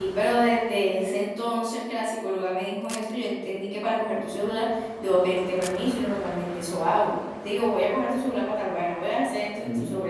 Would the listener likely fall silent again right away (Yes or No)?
No